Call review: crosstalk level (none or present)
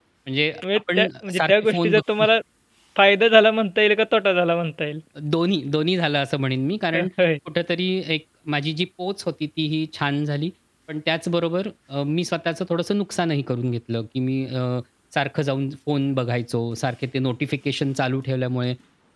present